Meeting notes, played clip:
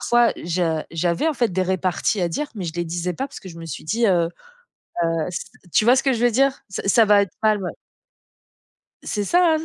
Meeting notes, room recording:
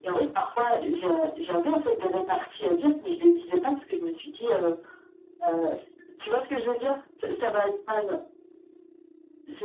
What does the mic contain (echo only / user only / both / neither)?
echo only